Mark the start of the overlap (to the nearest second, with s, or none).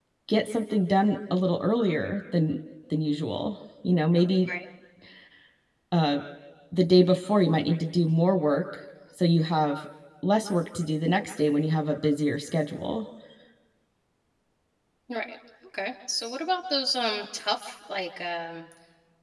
none